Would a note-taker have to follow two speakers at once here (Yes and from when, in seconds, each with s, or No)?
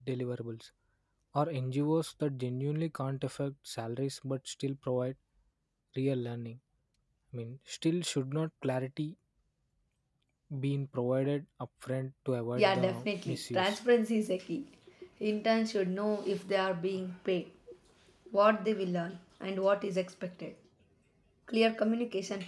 Yes, from 12.6 s